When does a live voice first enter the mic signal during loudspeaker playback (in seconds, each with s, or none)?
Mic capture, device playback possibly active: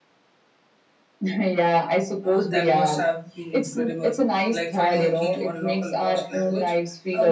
2.2 s